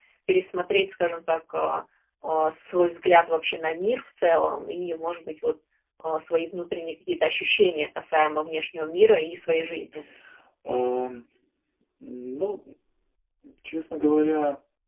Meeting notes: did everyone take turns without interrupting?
Yes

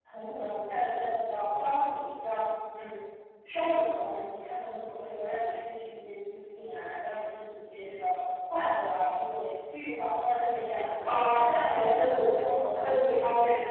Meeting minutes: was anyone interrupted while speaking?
Yes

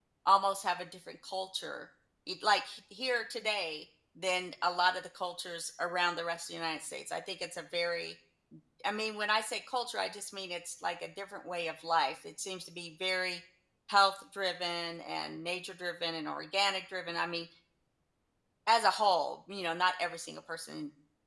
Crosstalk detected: No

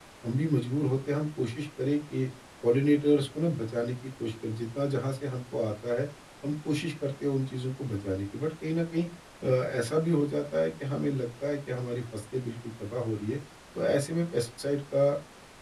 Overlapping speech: No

